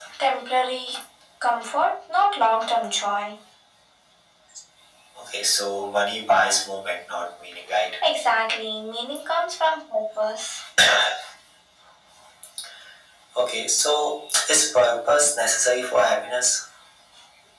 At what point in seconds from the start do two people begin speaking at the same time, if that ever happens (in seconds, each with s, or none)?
none